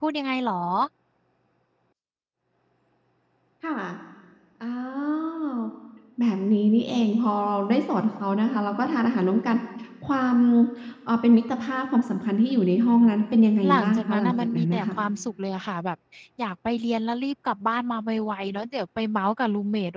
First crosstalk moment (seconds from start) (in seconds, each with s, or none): 13.6 s